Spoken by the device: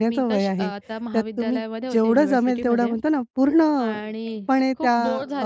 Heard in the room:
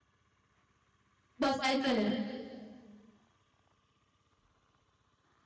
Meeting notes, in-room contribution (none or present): present